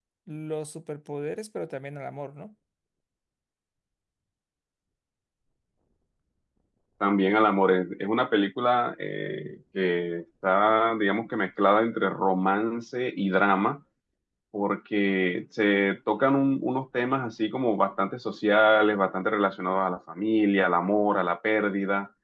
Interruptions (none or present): none